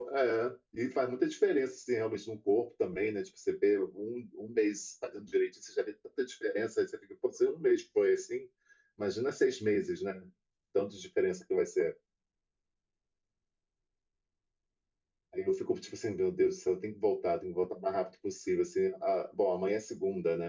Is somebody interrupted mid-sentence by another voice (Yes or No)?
No